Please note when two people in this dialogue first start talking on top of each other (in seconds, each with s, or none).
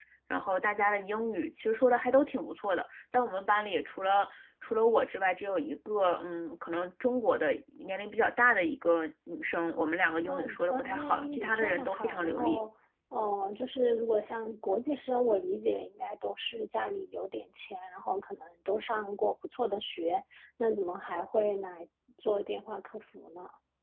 10.2 s